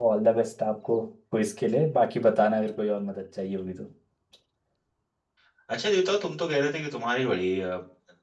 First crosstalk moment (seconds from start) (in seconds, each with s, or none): none